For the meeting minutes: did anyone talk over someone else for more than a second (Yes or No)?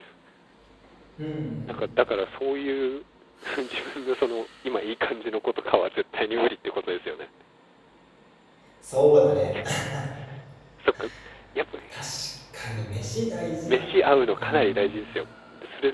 Yes